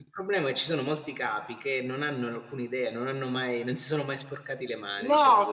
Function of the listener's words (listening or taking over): taking over